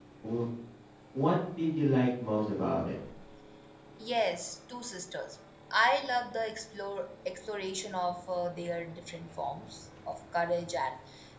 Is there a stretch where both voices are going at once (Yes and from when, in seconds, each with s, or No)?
No